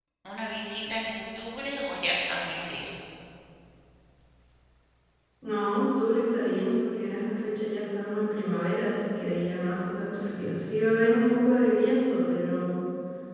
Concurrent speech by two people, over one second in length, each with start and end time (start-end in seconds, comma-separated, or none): none